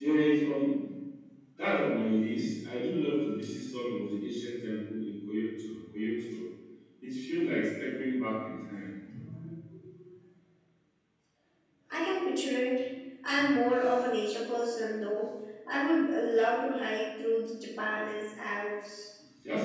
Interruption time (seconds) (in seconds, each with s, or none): none